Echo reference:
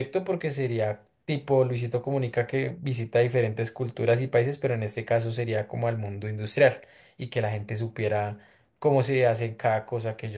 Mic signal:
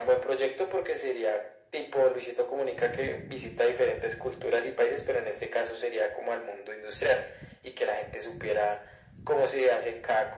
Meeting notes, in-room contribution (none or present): none